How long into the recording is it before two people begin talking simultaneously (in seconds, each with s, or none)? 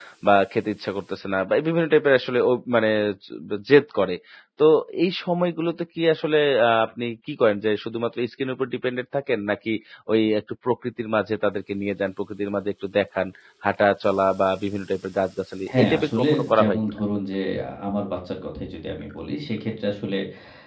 15.6 s